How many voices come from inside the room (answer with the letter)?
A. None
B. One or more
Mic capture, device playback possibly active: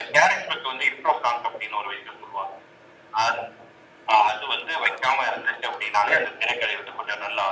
A